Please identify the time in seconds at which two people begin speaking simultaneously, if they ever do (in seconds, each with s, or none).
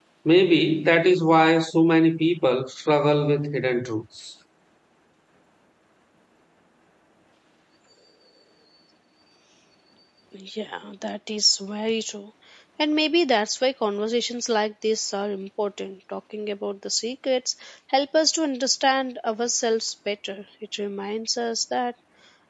none